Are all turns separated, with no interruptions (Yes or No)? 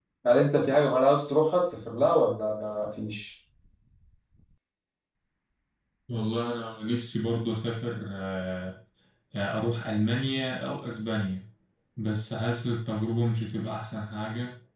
Yes